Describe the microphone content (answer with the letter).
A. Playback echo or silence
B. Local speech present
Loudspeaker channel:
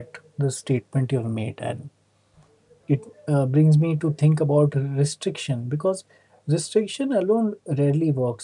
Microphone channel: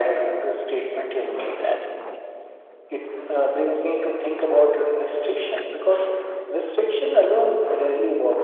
A